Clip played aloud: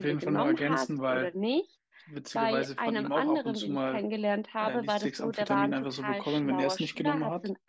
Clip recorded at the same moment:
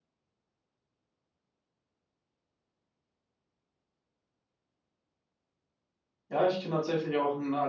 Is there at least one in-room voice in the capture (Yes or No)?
Yes